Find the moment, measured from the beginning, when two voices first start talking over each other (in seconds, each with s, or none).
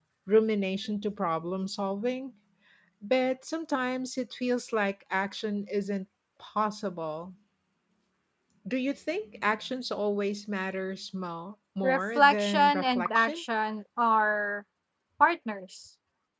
11.8 s